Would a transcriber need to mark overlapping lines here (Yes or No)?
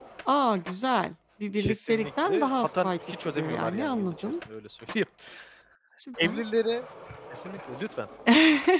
Yes